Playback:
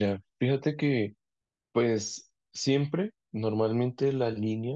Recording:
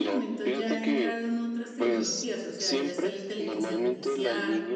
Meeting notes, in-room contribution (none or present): present